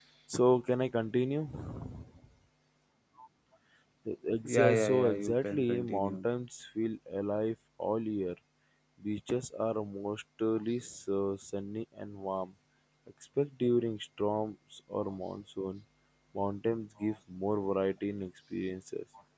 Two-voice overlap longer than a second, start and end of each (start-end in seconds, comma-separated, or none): 4.5-6.3